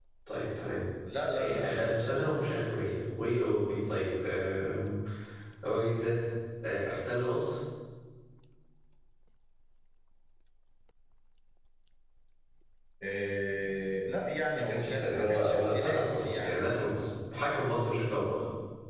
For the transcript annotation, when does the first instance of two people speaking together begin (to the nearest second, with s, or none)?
1 s